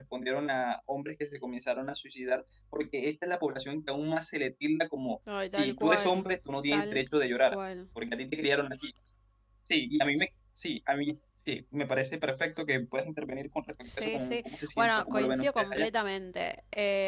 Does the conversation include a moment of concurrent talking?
Yes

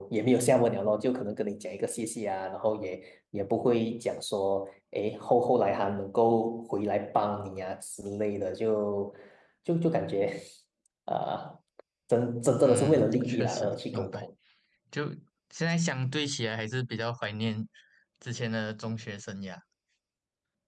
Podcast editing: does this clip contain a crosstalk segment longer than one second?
Yes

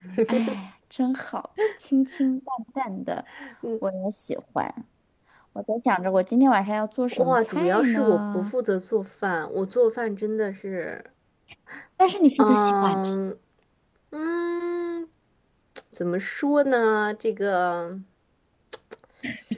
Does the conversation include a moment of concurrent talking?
Yes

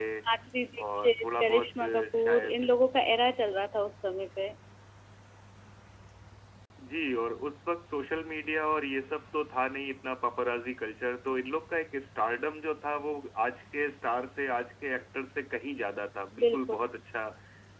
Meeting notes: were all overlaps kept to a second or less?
No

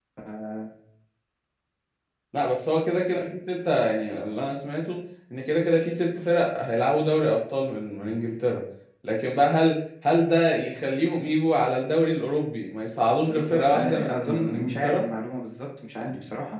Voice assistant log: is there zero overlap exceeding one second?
No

